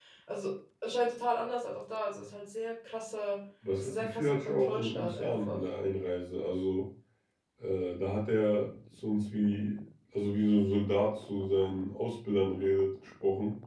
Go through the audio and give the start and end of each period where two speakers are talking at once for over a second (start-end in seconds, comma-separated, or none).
3.8-5.6